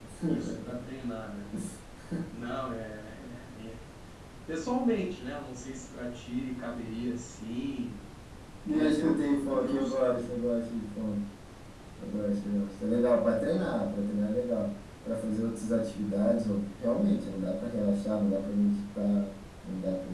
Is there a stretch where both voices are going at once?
Yes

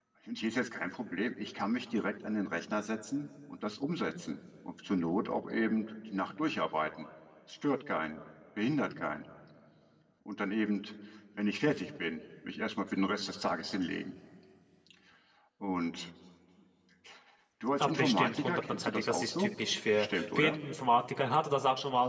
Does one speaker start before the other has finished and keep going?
Yes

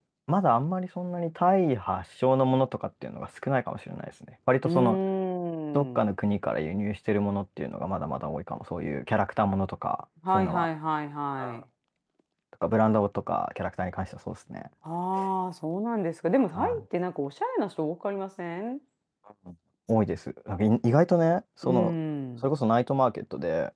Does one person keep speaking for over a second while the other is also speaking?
No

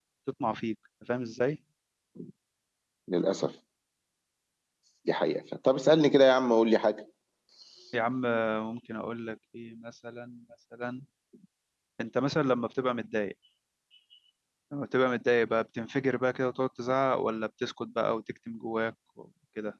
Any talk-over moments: No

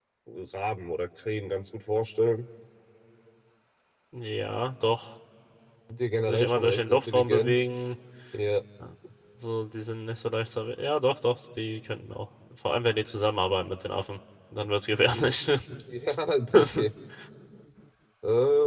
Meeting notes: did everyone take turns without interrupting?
No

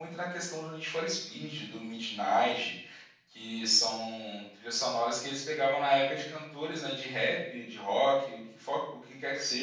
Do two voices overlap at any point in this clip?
No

